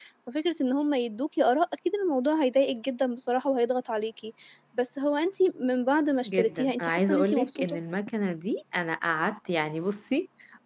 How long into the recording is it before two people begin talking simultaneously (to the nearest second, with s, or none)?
6 s